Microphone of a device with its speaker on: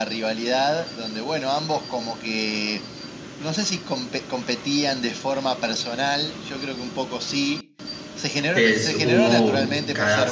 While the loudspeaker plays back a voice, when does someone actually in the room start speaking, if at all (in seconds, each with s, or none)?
8.5 s